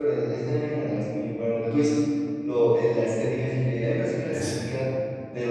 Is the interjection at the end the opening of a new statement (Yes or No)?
No